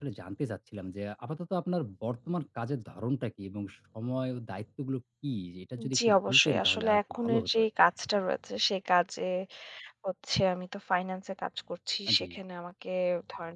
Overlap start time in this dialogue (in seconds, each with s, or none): 6.0 s